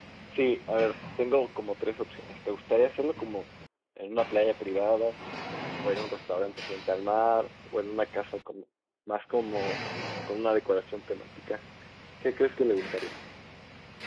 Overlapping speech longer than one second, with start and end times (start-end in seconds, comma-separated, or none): none